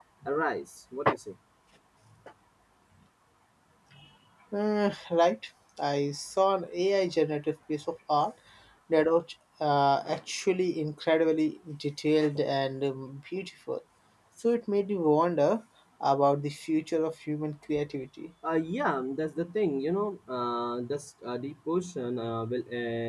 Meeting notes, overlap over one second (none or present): none